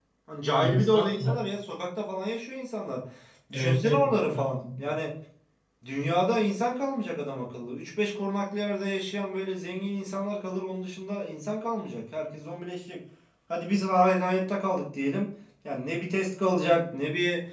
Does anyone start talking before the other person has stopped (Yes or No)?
Yes